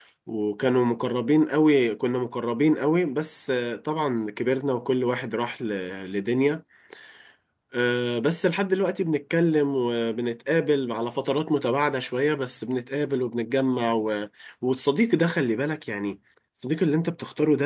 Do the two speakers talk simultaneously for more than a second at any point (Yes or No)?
No